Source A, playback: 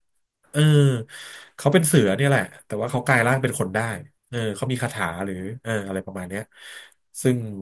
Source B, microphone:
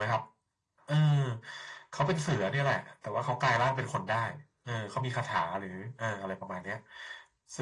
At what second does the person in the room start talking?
none

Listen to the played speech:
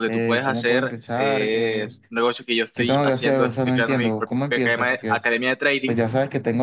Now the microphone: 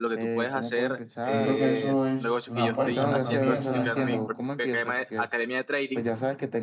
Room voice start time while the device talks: 1.2 s

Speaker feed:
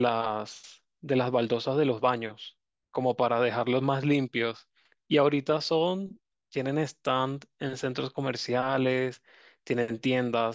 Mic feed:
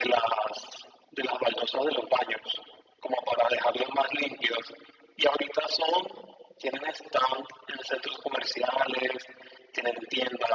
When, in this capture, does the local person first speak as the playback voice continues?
none

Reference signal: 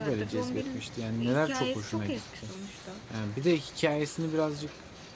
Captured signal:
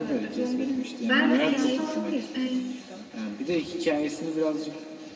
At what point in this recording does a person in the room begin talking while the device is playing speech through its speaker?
1.0 s

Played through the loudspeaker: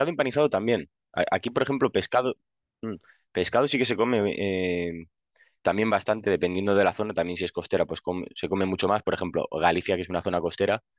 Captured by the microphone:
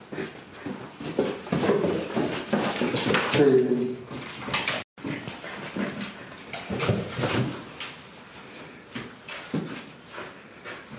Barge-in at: 3.3 s

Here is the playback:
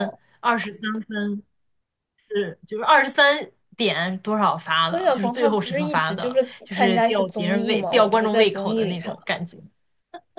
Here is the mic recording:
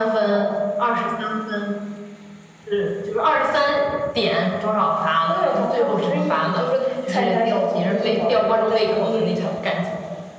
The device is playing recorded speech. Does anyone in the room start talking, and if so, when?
none

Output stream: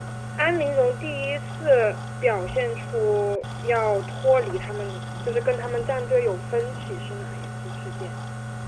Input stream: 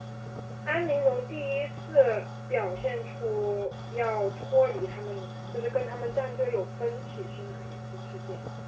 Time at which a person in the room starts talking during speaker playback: none

